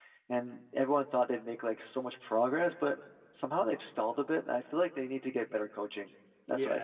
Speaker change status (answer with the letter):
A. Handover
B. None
A